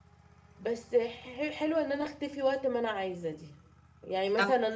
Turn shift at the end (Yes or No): No